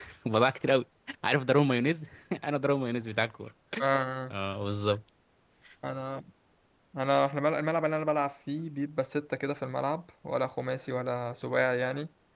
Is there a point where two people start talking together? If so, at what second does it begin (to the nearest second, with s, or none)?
none